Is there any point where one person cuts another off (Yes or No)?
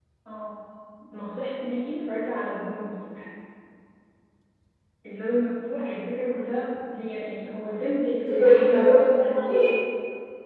Yes